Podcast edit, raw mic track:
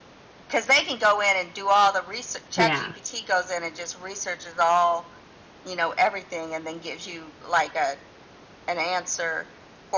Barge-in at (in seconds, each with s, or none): 2.5 s